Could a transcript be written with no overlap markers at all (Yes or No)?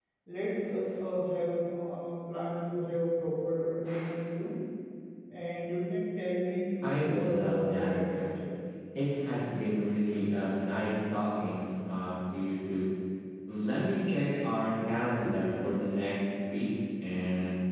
No